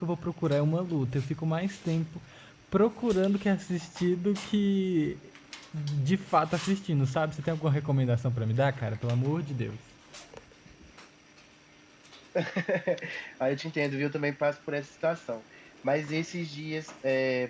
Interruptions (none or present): none